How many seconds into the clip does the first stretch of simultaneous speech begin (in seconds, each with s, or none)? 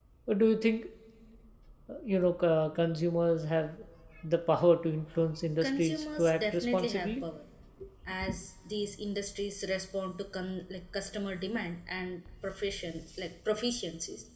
5.6 s